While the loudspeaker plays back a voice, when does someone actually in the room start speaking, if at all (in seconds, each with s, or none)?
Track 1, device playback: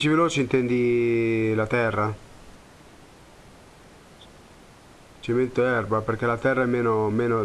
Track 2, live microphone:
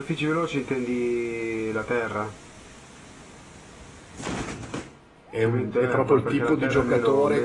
5.3 s